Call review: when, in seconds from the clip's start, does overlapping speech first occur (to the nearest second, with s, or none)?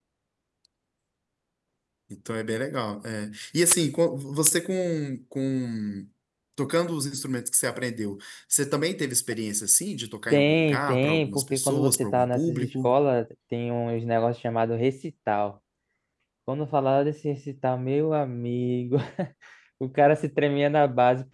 10 s